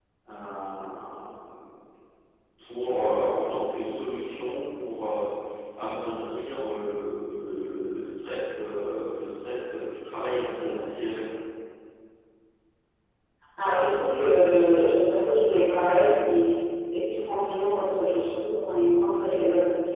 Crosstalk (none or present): none